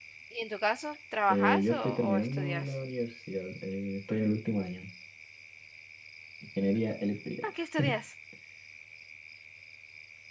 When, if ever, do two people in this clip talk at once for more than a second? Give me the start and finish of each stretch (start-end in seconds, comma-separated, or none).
1.3-2.8